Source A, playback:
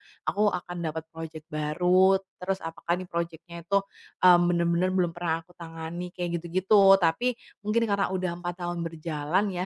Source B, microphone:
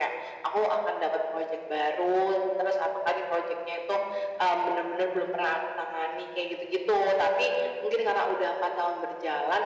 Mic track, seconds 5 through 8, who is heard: echo only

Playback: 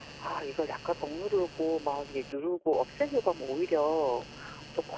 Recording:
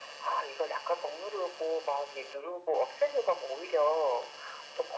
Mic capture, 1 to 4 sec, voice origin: echo only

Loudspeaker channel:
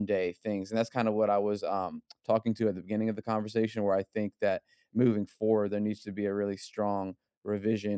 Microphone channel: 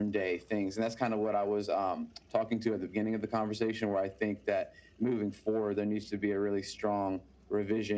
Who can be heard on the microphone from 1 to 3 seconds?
echo only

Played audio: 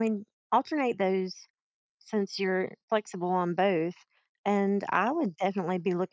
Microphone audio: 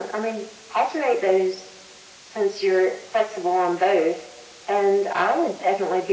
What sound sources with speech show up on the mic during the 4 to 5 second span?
echo only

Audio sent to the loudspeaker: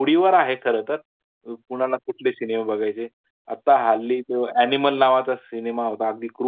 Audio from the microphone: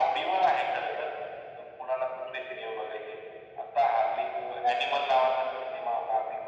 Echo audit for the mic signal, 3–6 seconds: echo only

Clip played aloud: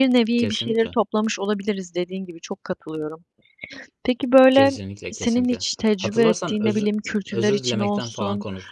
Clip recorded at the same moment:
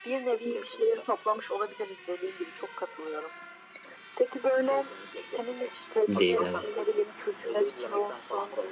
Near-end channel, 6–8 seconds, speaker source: both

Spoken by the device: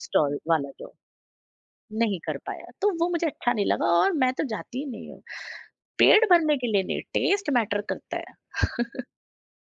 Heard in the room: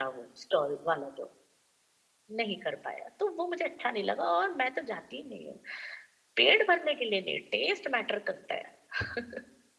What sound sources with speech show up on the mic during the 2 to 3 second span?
echo only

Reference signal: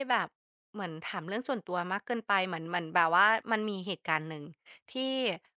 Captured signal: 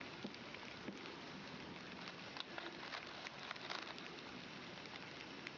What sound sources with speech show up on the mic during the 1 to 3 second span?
neither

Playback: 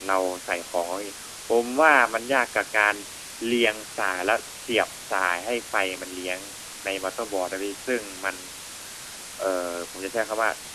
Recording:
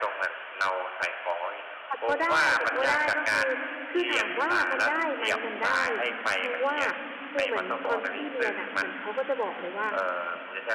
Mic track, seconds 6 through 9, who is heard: both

